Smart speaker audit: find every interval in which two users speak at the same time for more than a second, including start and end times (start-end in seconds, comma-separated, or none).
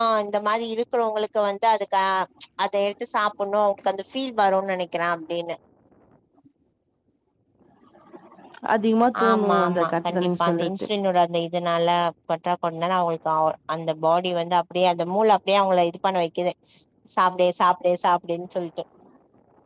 9.2-10.7